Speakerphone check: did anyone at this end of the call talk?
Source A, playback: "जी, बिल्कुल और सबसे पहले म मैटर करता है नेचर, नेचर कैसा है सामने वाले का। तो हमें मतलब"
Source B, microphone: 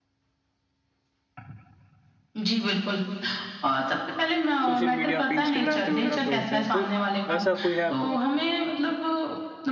Yes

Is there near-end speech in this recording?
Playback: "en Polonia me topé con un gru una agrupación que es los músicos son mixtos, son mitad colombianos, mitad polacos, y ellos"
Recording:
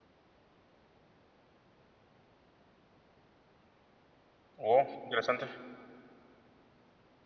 Yes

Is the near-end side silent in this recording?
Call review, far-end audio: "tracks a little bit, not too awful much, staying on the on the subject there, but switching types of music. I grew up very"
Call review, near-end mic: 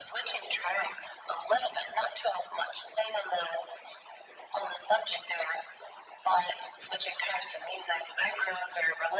Yes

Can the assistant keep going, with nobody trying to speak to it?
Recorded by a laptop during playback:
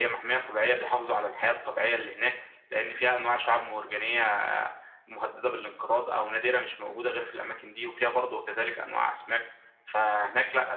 Yes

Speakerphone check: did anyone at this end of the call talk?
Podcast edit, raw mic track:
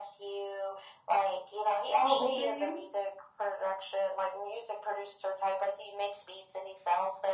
Yes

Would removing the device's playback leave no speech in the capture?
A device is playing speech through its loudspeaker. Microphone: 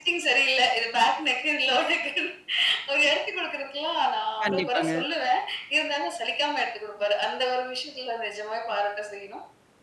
No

